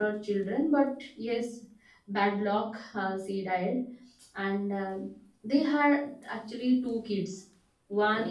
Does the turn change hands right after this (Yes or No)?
No